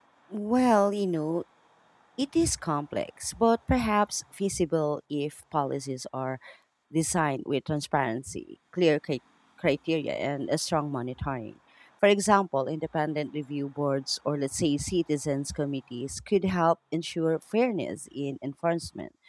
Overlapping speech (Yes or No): No